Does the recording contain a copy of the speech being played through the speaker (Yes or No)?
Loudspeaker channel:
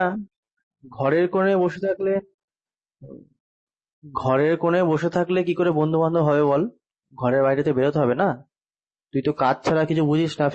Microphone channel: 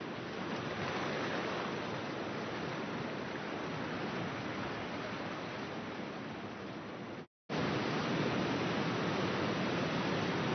No